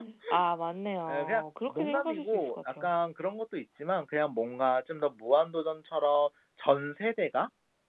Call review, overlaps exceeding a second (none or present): present